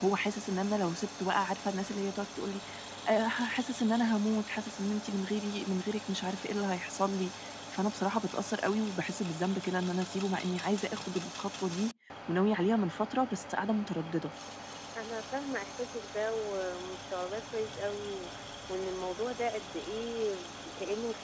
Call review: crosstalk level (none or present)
none